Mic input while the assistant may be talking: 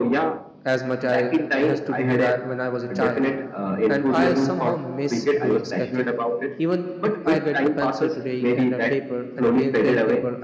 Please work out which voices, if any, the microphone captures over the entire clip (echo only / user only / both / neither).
both